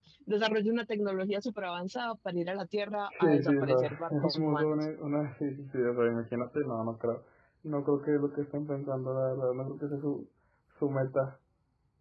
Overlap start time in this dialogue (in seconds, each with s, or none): 3.1 s